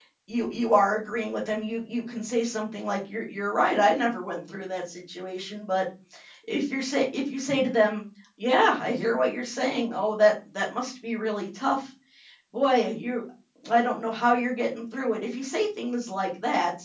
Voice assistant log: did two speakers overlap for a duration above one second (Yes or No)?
No